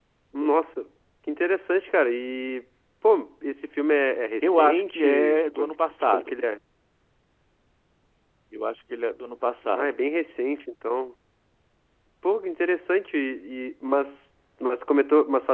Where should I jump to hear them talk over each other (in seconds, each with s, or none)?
4.4 s